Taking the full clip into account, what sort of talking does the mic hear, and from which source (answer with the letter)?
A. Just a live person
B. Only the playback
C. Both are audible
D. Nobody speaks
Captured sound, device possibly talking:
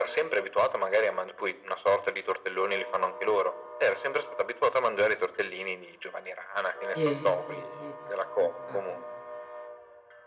C